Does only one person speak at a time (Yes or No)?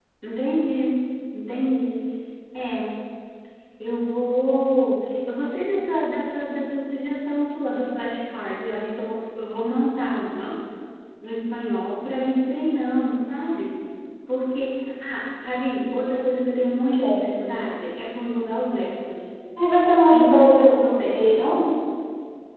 No